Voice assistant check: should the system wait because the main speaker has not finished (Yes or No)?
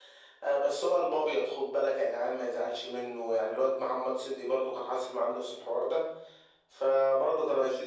Yes